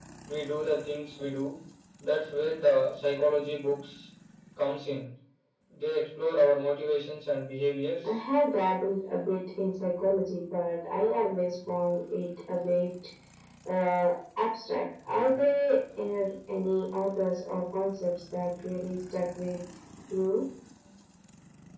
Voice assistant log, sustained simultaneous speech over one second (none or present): none